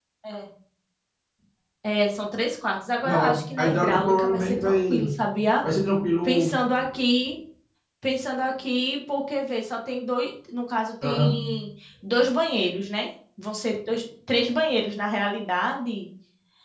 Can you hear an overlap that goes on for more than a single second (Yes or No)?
Yes